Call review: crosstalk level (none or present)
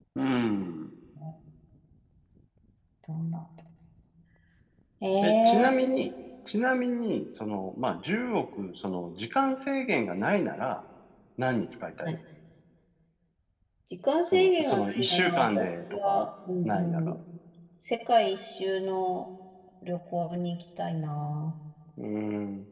present